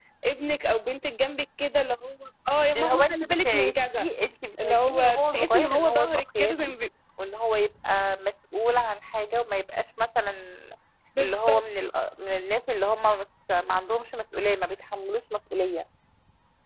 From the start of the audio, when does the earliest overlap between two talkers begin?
2.8 s

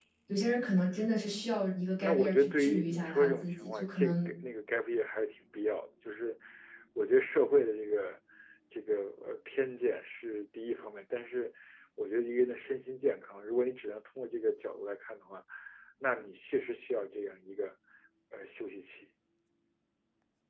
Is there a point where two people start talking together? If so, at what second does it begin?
2.0 s

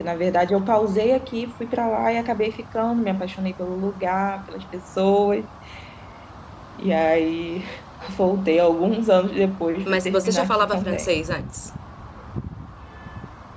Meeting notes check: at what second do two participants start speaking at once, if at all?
9.8 s

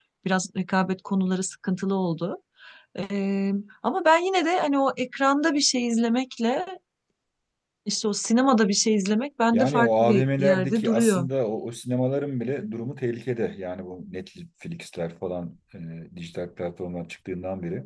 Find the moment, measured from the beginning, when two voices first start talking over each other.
9.5 s

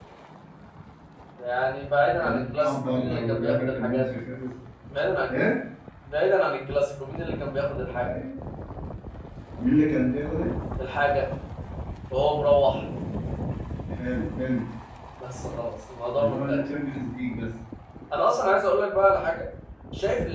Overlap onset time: 2.2 s

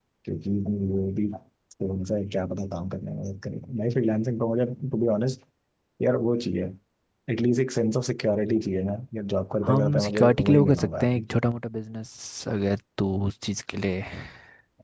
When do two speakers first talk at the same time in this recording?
9.6 s

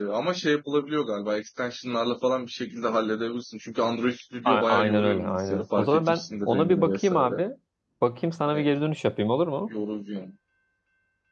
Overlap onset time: 4.5 s

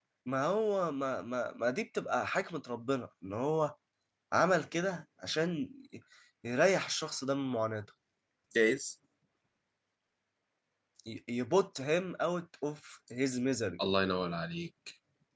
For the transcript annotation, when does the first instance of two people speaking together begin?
none

